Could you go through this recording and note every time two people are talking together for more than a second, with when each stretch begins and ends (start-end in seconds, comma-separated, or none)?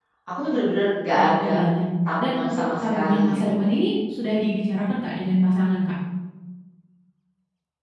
2.2-3.7